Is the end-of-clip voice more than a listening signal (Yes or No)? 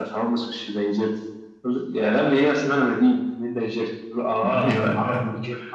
No